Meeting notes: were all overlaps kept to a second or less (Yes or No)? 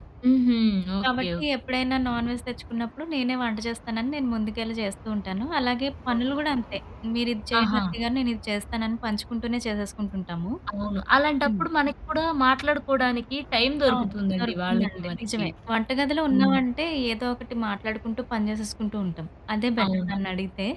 No